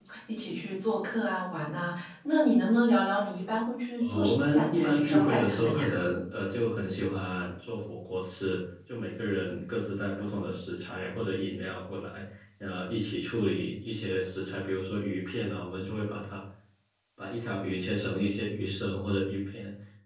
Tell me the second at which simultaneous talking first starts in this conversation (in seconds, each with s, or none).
4.0 s